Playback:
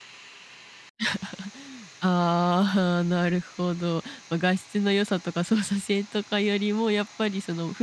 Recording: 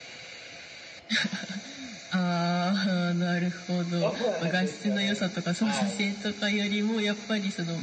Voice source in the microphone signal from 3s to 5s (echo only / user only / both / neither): both